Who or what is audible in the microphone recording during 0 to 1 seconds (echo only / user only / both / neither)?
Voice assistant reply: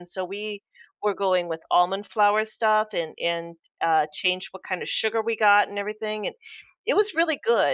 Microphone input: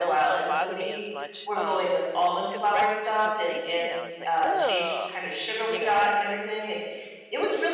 both